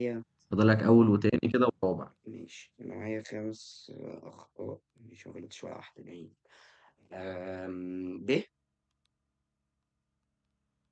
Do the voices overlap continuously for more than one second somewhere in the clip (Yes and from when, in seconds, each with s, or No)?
No